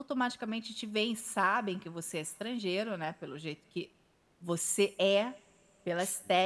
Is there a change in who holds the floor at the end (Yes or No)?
No